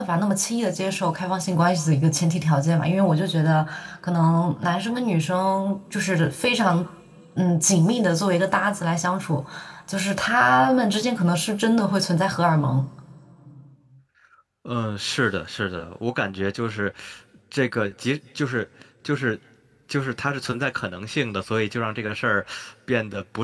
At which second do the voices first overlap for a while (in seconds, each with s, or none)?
none